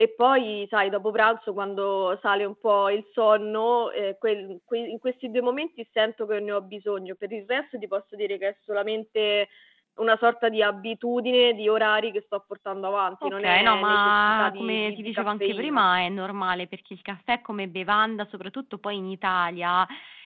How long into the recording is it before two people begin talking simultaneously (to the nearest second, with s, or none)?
13 s